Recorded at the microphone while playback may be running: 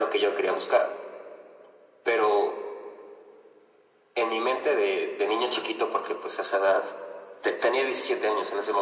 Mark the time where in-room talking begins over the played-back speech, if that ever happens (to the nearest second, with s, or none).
none